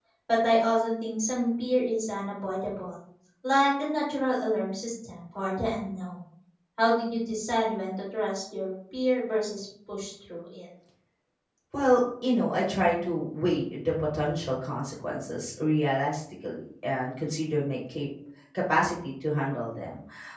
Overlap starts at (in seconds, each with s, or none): none